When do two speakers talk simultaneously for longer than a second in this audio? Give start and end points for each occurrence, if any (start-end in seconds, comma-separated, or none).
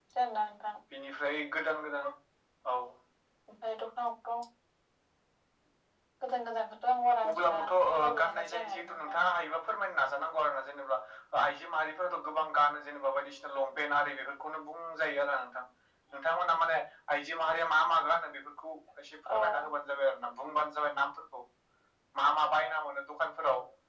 7.3-9.2